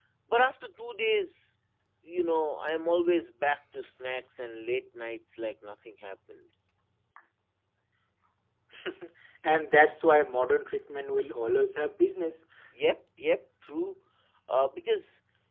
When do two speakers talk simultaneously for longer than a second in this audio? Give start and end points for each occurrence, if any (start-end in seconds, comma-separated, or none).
none